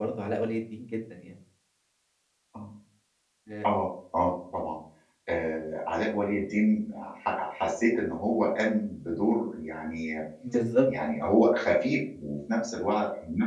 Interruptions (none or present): none